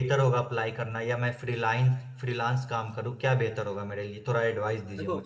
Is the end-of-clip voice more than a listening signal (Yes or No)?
Yes